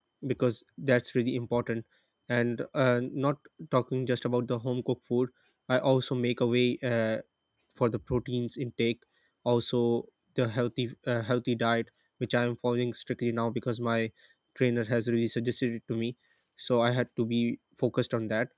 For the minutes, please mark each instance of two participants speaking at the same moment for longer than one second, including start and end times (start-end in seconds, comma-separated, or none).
none